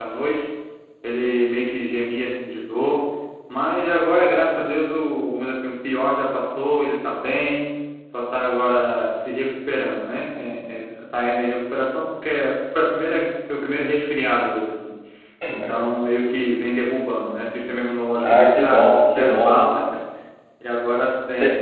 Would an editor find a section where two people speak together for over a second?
Yes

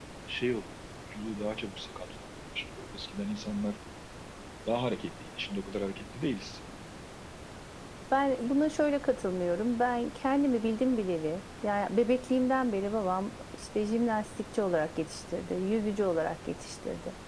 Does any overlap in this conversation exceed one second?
No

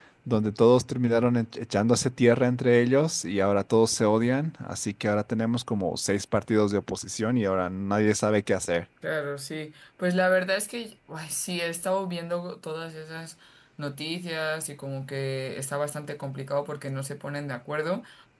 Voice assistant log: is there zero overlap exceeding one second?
Yes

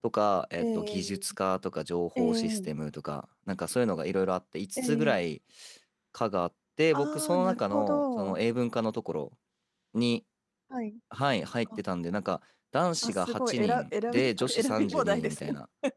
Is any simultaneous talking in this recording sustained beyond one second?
Yes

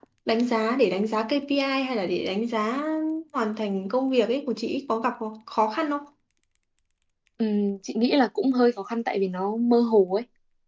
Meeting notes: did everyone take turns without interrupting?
Yes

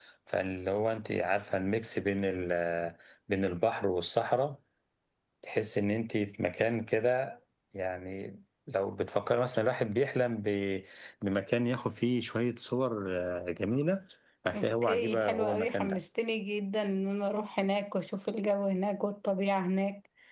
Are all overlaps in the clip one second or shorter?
No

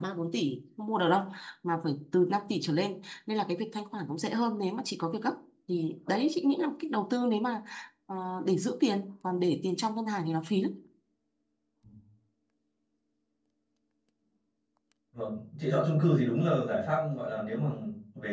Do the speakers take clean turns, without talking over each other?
Yes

